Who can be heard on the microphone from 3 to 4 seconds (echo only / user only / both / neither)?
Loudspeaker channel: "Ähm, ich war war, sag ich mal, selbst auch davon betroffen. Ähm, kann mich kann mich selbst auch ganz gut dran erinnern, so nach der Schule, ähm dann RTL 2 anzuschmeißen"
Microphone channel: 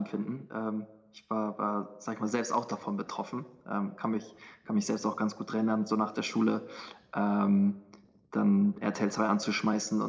echo only